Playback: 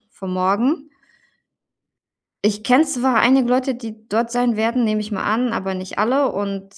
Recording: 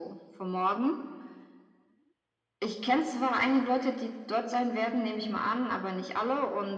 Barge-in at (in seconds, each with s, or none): none